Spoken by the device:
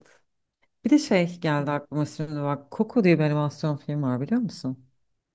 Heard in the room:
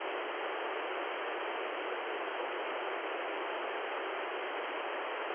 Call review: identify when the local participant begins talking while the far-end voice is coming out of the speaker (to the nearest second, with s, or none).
none